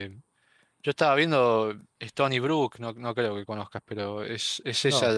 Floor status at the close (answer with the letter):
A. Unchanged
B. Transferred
A